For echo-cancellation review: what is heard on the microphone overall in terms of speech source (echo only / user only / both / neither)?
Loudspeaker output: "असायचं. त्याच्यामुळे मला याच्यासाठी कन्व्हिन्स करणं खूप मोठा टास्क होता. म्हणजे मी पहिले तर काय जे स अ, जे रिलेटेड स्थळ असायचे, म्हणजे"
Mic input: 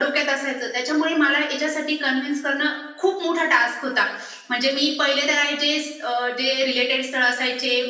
echo only